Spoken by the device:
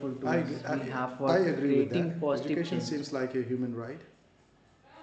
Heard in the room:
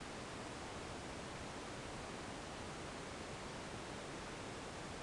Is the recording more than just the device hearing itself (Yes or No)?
No